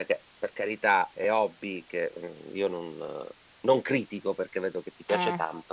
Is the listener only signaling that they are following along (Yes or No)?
Yes